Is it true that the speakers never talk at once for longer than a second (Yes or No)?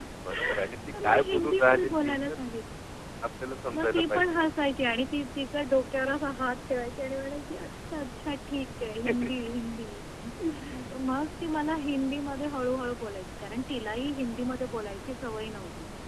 No